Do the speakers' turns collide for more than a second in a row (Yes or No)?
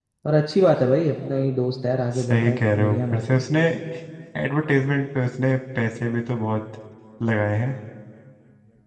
Yes